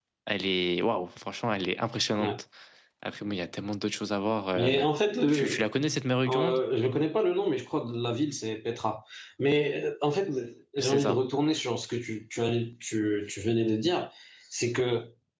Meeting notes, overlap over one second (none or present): none